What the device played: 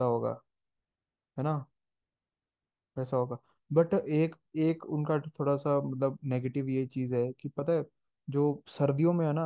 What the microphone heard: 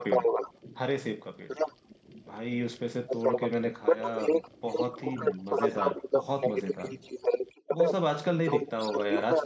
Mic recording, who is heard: both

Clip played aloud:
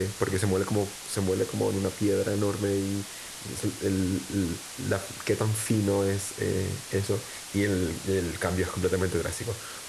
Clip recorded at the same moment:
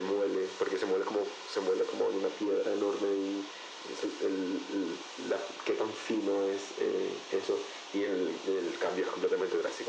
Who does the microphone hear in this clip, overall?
echo only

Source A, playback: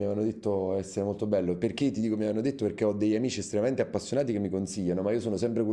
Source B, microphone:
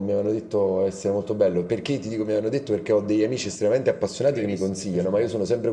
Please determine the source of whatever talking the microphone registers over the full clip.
both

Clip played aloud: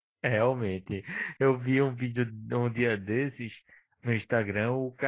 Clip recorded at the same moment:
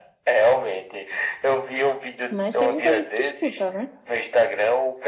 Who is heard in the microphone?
both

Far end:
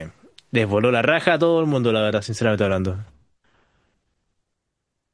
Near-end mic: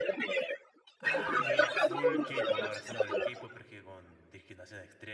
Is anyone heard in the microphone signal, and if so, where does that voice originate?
both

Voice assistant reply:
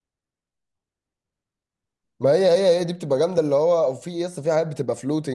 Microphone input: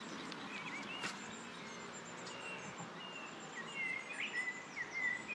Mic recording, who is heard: neither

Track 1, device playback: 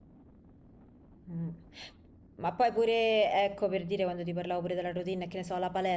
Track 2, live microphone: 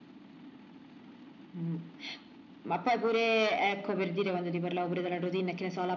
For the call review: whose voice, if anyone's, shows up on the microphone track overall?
echo only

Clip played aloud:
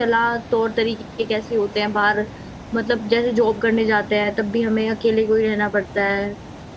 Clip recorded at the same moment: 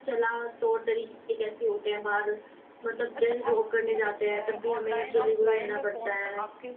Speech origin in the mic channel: both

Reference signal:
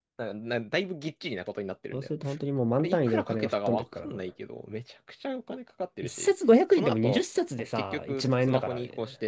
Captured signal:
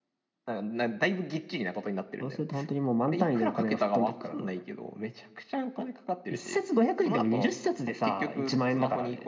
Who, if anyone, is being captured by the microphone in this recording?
echo only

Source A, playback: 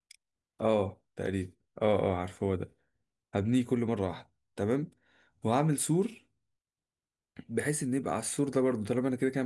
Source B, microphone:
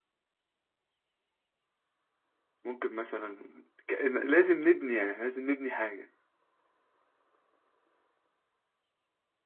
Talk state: user only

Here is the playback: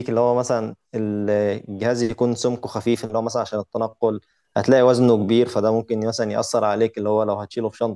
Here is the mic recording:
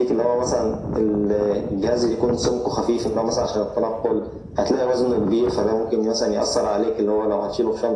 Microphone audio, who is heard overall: echo only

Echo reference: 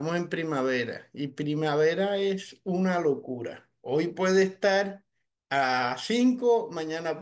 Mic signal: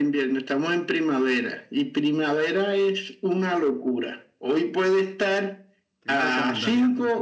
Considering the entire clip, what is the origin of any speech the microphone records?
both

